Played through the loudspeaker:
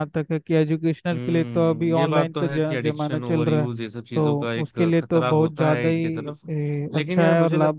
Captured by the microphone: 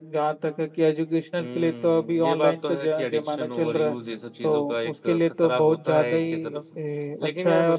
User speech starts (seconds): none

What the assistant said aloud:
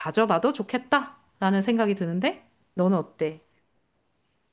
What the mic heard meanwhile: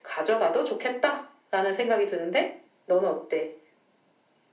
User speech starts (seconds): none

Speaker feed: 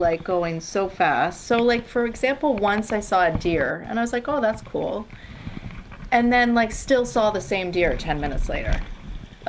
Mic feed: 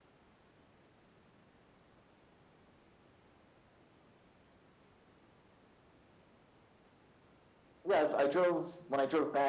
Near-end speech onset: 8 s

